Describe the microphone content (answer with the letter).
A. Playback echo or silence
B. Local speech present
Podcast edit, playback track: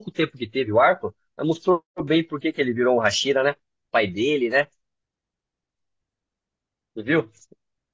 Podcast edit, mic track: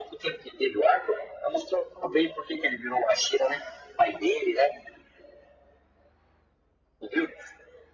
A